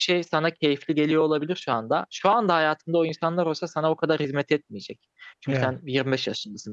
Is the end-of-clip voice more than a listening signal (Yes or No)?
No